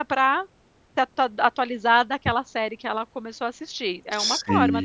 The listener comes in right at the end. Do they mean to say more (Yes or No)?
Yes